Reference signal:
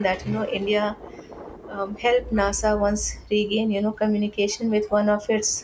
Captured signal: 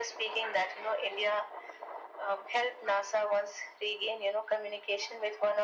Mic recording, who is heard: echo only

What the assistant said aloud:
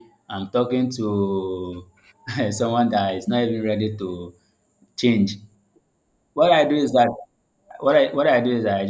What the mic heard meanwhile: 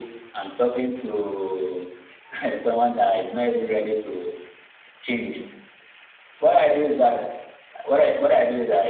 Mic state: echo only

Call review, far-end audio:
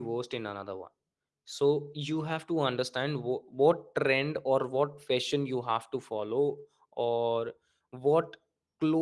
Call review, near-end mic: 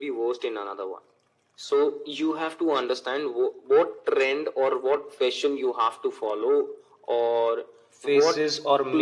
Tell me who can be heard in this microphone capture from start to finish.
both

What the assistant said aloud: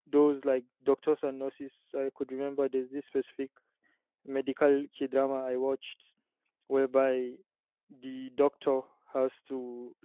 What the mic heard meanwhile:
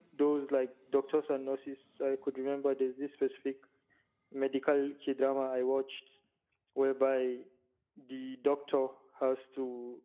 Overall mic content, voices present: echo only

